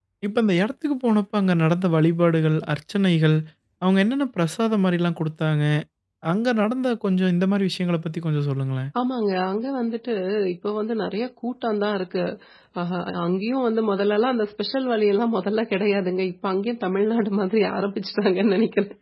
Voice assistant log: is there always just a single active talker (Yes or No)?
Yes